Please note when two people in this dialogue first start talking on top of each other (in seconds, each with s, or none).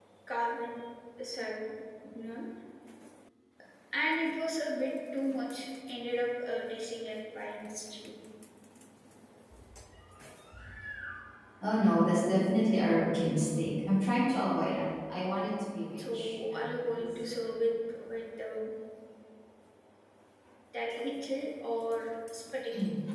16.0 s